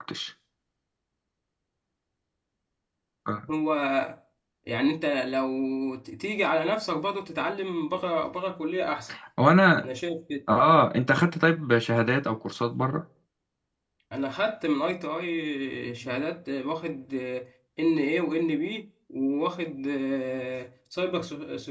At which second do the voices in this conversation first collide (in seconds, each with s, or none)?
none